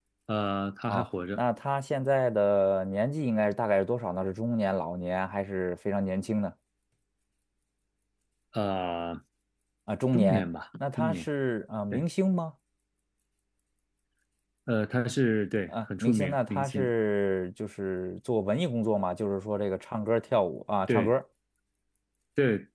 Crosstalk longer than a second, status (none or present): present